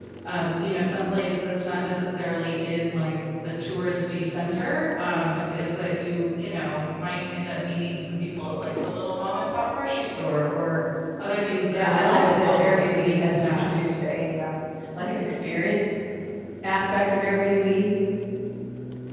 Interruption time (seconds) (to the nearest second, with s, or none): 12 s